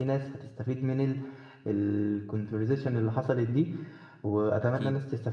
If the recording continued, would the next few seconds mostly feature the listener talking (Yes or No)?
No